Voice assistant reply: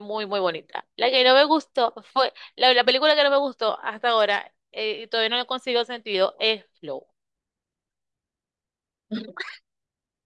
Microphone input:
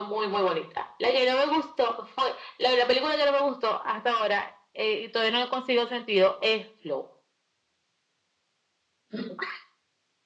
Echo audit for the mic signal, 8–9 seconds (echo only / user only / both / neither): neither